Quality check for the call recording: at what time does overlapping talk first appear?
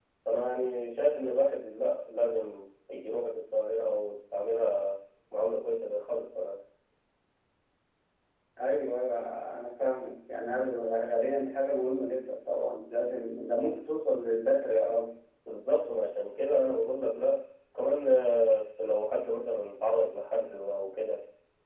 none

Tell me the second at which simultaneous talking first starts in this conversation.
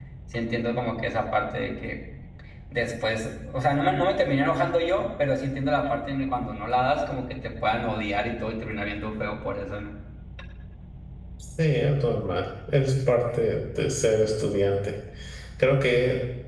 none

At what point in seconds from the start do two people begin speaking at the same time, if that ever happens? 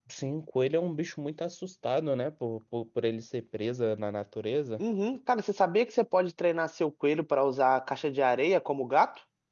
none

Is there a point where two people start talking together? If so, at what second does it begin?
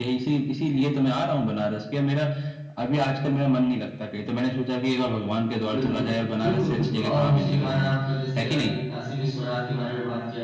5.7 s

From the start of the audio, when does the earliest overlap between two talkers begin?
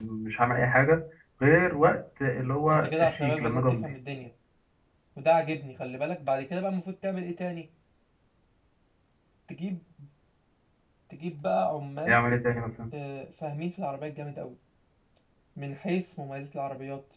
2.7 s

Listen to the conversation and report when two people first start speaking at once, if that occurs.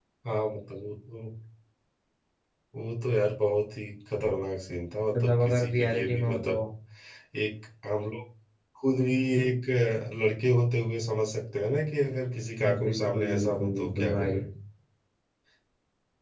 5.1 s

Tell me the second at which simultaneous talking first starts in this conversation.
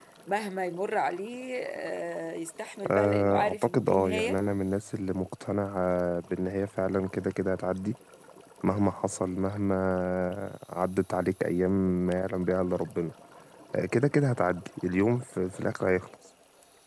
2.9 s

